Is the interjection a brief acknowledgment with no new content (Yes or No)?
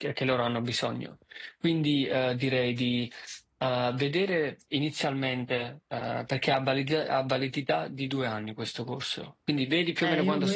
No